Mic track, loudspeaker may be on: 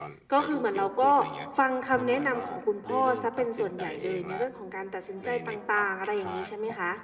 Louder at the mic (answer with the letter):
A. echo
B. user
B